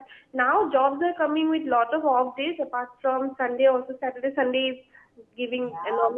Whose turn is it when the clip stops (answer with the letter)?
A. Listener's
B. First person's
B